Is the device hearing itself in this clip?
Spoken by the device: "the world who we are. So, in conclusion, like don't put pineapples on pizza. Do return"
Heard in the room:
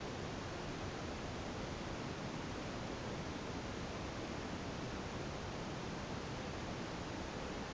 No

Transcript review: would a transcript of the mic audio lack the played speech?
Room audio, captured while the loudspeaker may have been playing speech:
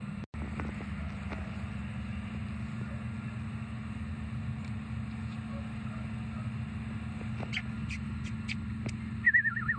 Yes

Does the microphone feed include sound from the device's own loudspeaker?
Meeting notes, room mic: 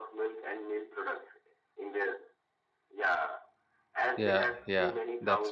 Yes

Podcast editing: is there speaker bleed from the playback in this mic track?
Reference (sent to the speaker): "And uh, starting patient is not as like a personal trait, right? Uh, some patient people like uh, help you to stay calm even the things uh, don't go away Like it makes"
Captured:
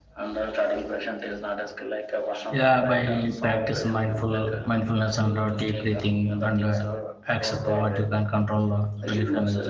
Yes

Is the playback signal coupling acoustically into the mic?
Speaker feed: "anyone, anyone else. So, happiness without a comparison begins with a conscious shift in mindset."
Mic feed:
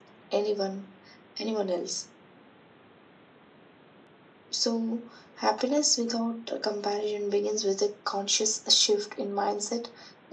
Yes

